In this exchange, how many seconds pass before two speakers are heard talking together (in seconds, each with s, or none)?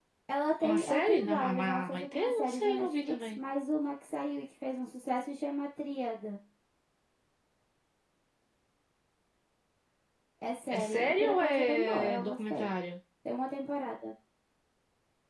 0.6 s